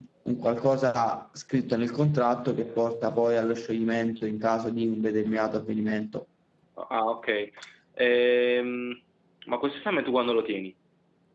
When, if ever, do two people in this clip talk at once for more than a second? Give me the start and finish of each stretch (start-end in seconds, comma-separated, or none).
none